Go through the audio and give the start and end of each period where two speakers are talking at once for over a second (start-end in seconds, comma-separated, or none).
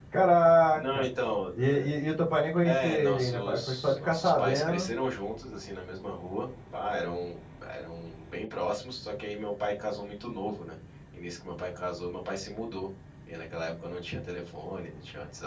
2.6-4.9